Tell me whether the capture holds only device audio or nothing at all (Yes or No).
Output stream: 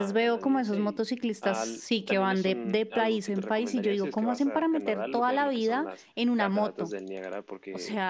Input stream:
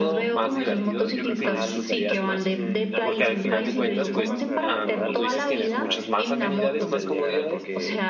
No